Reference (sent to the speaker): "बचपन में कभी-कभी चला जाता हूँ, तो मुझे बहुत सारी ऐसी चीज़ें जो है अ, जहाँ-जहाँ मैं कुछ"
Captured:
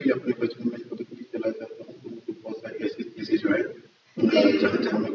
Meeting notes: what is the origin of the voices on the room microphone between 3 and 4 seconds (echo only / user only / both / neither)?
echo only